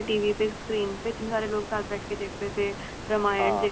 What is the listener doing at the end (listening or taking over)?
listening